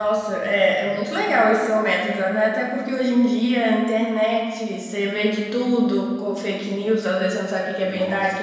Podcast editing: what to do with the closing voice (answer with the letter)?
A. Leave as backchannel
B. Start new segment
A